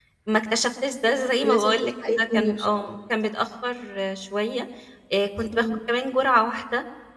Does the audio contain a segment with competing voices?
Yes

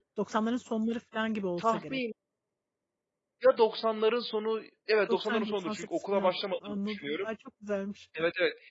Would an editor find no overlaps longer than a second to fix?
No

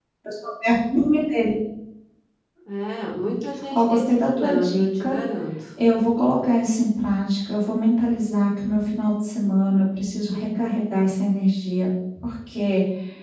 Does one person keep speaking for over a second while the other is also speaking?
Yes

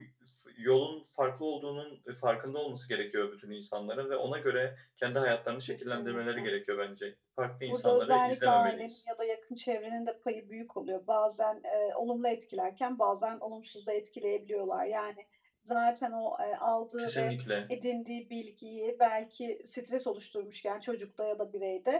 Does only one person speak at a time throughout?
No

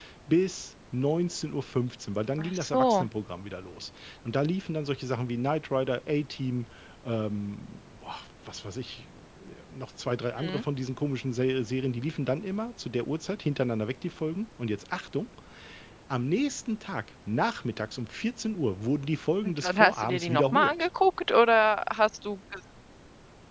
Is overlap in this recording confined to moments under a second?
No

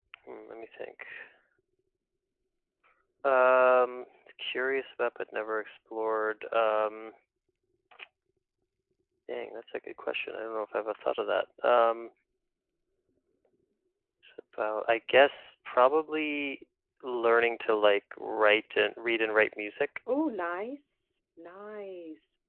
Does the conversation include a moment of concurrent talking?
No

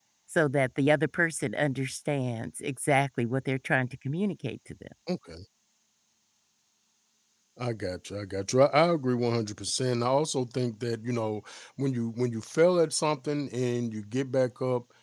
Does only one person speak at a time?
Yes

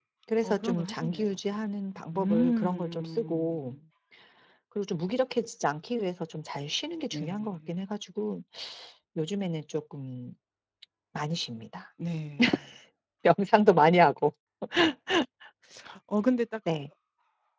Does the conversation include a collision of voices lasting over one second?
Yes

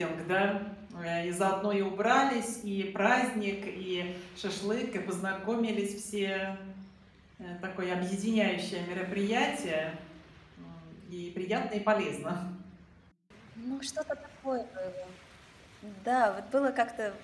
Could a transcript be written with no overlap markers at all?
Yes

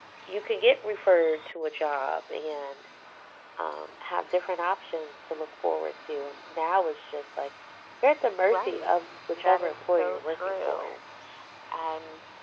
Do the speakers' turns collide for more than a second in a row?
Yes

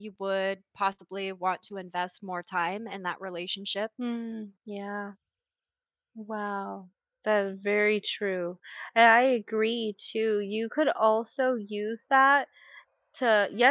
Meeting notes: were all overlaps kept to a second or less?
Yes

